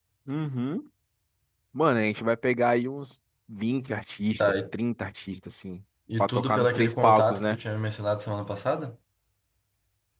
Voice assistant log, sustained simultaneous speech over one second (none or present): present